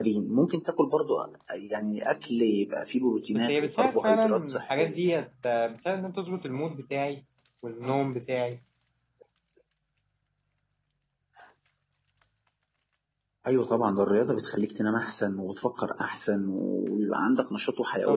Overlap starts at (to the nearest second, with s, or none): 3 s